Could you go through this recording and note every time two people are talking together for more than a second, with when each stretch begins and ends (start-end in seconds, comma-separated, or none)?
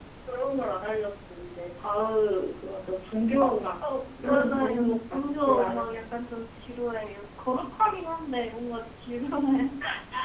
4.2-6.0